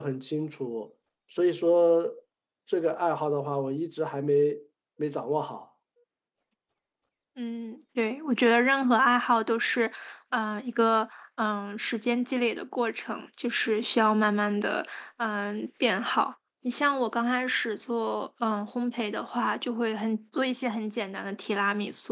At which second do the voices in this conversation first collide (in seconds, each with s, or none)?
none